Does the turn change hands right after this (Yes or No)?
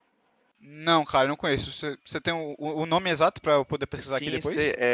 Yes